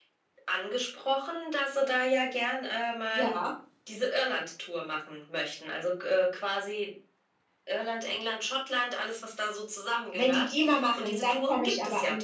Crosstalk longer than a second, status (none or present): present